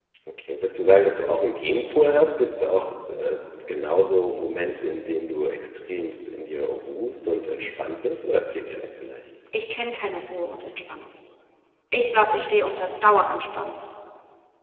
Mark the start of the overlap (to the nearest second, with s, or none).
none